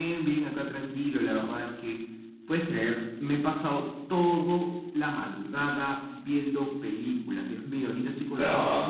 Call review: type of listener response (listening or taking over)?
listening